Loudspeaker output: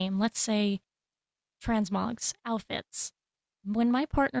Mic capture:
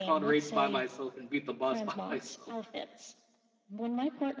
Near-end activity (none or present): present